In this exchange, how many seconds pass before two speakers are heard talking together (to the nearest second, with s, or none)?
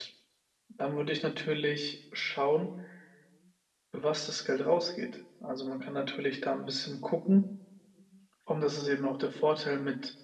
none